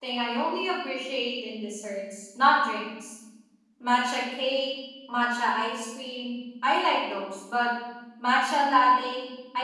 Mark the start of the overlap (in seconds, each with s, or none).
none